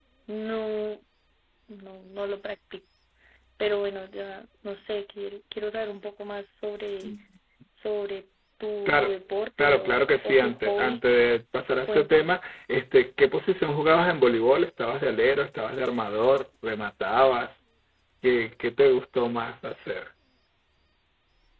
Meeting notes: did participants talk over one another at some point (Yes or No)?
Yes